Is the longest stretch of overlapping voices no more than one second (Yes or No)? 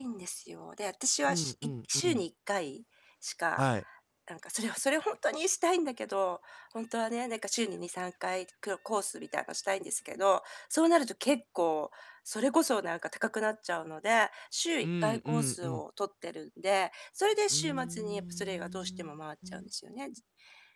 No